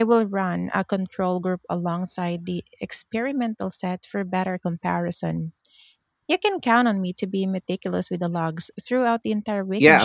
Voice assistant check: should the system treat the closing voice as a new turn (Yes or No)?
Yes